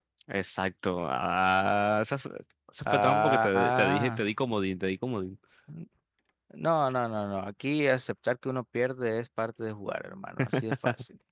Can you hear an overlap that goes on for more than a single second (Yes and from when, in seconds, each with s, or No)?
Yes, from 2.8 s